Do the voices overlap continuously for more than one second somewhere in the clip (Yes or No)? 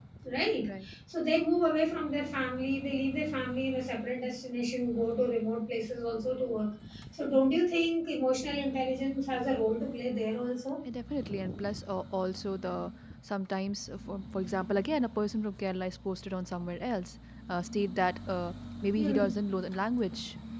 No